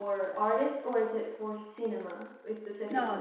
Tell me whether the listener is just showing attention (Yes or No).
No